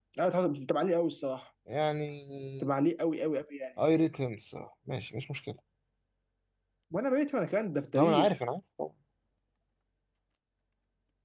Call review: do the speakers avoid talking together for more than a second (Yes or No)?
Yes